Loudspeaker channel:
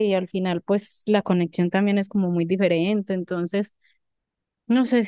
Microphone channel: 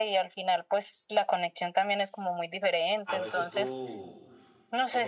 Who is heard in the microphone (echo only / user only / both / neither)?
both